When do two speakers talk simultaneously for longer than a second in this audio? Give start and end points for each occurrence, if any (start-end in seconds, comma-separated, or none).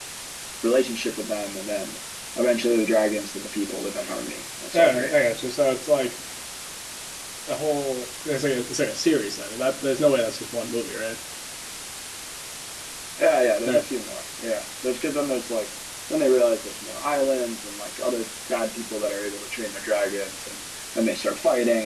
none